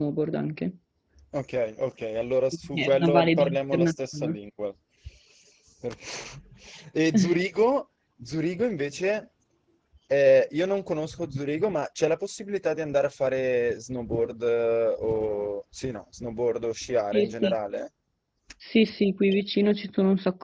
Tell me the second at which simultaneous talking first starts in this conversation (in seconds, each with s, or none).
2.7 s